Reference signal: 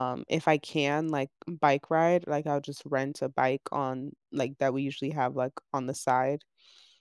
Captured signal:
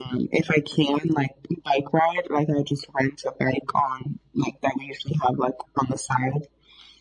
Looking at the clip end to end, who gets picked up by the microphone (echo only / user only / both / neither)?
echo only